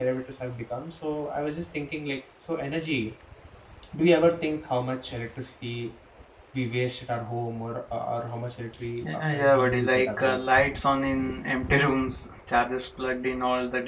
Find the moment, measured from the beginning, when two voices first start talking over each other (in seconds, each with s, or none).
9.0 s